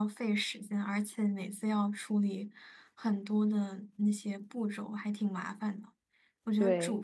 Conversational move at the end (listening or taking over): listening